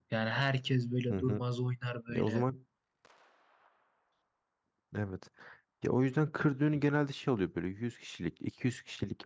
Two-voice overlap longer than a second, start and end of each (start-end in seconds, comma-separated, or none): none